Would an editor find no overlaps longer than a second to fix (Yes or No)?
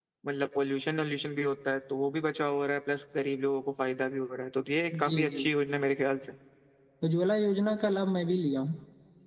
Yes